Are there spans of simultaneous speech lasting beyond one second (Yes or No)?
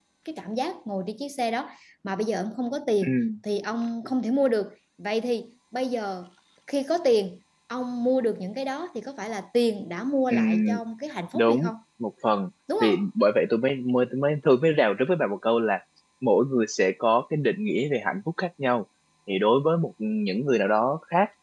No